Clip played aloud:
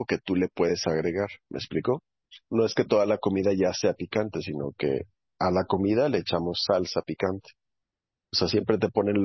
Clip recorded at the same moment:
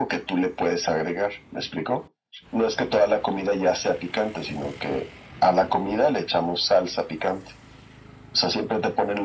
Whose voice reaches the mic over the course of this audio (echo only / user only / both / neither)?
echo only